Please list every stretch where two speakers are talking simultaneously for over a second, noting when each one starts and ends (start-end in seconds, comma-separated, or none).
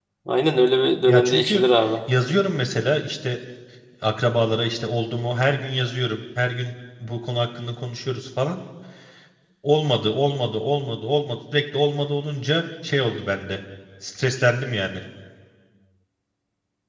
none